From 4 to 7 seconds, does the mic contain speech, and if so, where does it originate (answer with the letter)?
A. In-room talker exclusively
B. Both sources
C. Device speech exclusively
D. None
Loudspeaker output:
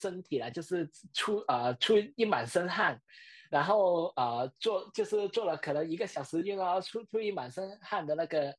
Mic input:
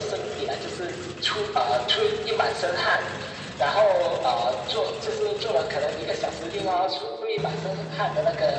C